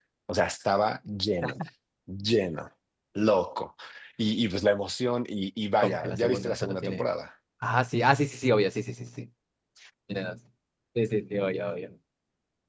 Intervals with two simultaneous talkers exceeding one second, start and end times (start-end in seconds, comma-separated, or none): 5.8-7.1